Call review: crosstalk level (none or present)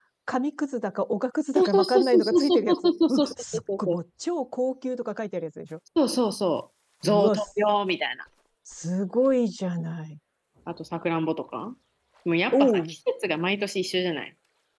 present